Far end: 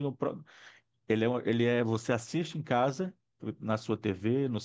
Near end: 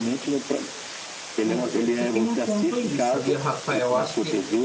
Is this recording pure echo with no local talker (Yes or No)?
No